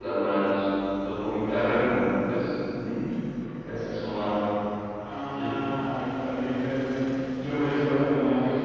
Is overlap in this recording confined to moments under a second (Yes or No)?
Yes